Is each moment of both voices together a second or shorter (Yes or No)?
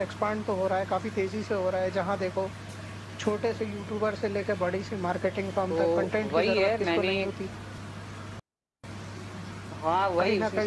No